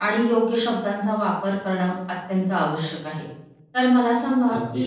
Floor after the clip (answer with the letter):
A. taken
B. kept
B